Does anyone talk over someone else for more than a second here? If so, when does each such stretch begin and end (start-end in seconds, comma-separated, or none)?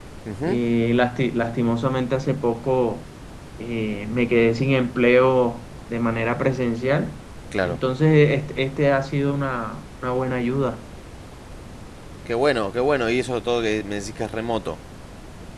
none